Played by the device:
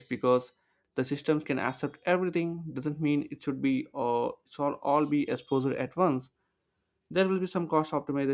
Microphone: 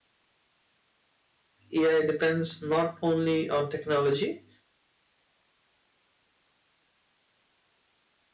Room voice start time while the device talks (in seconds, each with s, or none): 1.7 s